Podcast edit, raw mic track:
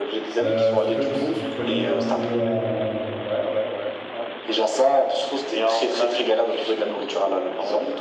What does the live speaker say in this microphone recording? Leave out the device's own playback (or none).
Euh, est-ce que tu t'y connais un peu en,